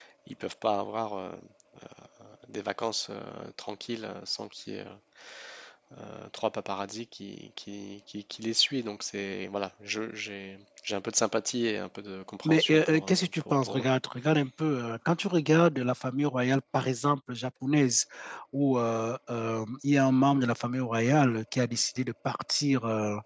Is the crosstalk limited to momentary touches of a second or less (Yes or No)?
No